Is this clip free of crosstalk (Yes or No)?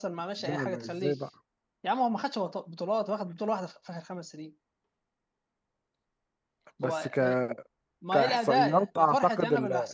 No